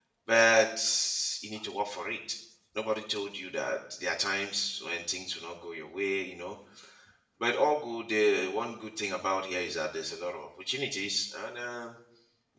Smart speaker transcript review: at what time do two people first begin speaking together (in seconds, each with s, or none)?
none